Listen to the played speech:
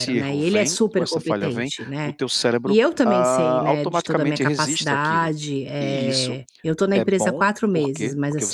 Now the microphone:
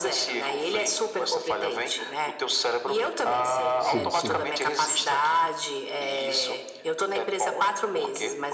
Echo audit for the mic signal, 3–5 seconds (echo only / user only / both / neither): both